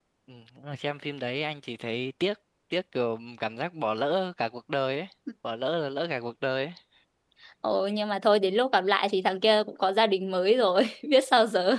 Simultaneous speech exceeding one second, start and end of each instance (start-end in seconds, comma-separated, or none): none